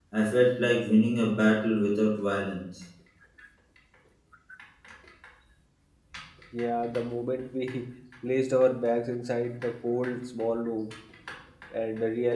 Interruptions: none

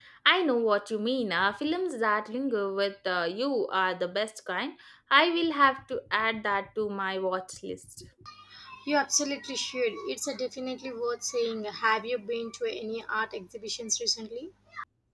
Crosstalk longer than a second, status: none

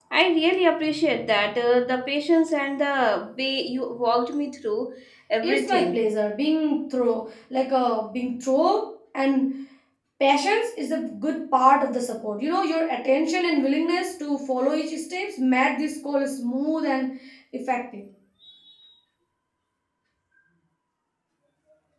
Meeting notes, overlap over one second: none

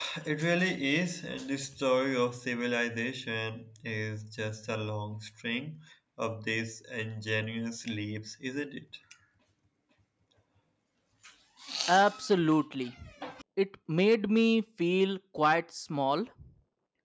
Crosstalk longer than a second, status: none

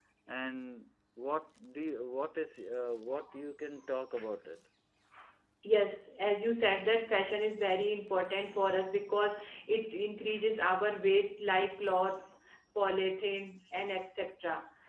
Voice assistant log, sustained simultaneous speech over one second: none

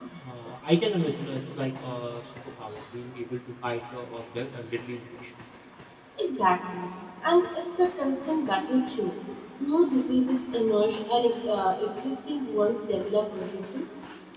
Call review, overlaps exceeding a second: none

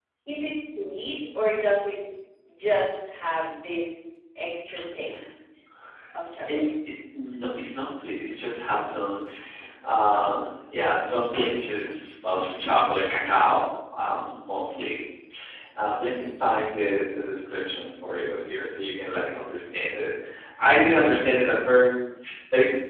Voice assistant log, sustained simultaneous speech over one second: none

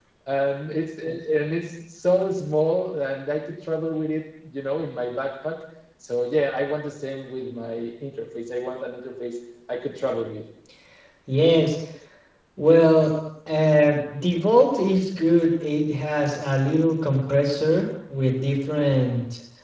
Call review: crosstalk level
none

